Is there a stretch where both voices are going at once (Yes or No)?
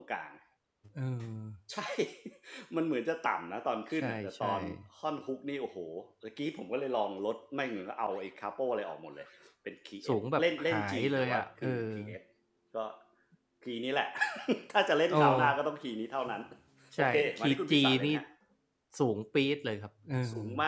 Yes